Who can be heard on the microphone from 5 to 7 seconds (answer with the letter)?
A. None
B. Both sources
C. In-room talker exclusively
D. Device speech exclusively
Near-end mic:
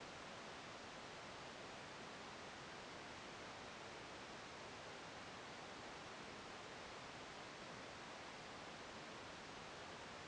A